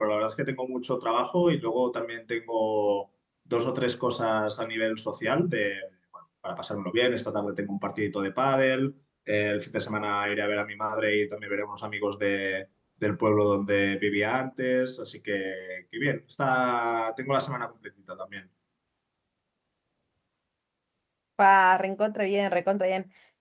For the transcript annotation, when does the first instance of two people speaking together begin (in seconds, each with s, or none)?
none